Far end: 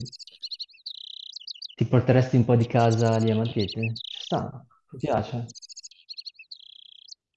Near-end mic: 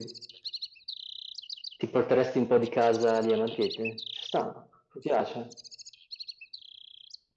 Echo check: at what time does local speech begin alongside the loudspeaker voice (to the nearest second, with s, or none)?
none